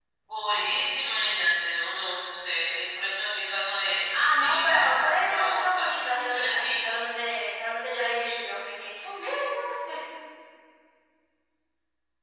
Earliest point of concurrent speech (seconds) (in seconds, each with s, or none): 4.4 s